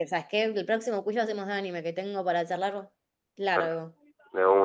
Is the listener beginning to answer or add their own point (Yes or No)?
Yes